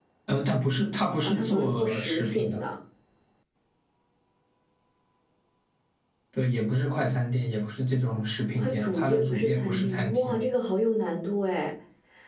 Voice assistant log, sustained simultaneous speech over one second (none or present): present